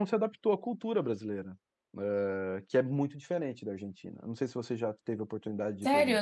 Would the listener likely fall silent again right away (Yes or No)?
No